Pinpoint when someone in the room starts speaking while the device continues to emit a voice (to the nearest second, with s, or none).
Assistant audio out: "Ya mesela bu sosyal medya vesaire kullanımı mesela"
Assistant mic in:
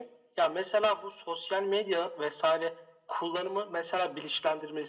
none